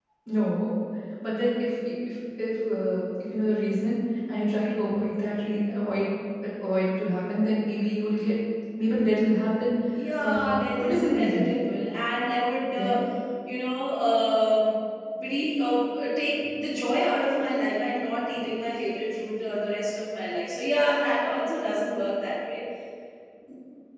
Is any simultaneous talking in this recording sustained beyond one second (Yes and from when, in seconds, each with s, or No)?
Yes, from 10.2 s